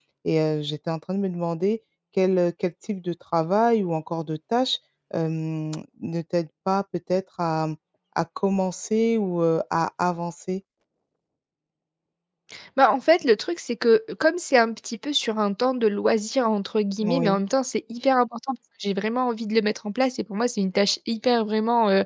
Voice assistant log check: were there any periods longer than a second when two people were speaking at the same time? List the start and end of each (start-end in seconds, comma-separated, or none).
none